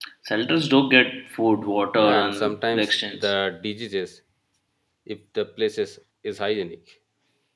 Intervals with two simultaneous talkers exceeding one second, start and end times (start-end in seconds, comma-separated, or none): 1.9-3.3